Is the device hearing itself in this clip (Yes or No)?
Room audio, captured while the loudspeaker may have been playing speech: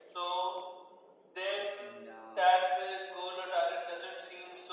Yes